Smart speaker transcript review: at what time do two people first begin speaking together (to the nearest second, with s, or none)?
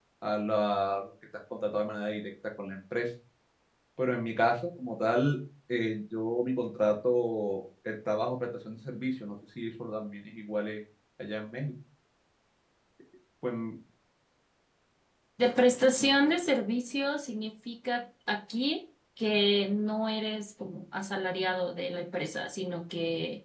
none